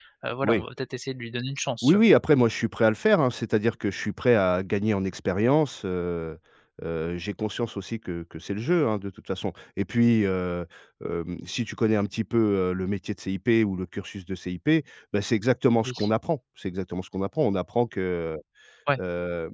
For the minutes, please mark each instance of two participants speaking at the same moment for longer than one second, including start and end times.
none

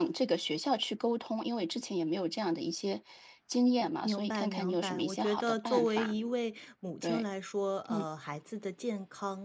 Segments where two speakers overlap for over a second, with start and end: 4.0-6.1

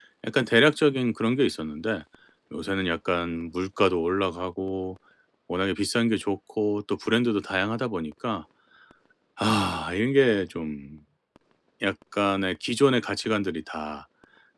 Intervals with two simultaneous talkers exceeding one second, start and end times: none

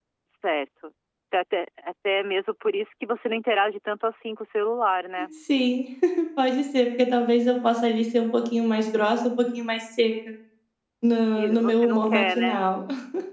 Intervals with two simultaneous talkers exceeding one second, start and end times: 11.3-12.6

